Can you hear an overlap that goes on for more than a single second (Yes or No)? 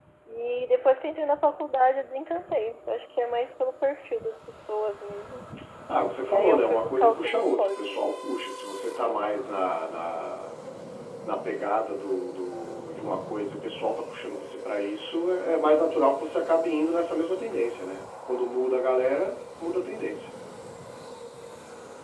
Yes